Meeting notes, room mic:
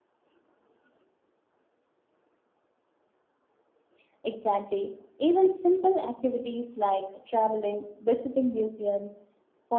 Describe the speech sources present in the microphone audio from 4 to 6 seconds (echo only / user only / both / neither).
echo only